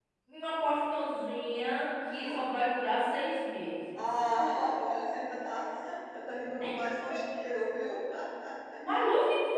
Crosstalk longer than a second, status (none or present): none